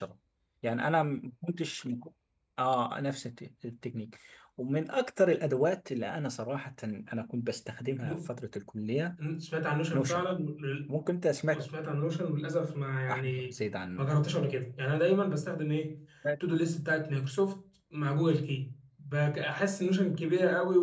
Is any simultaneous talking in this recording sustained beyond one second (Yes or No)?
No